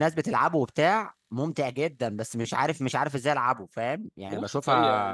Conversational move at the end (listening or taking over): taking over